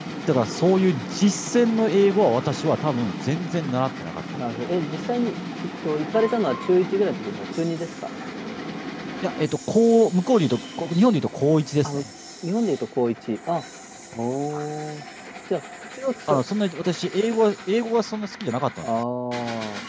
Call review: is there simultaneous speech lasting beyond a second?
No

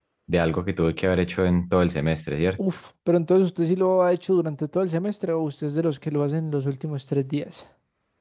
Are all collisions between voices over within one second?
Yes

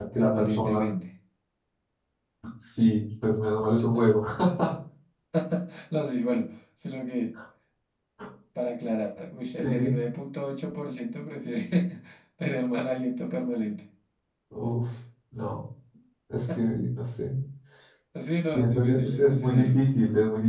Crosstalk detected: Yes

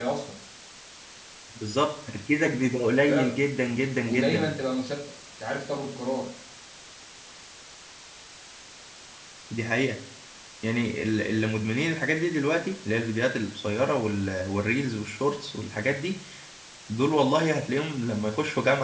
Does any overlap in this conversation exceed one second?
No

